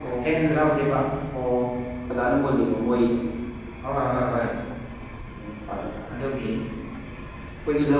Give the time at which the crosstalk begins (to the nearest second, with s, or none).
none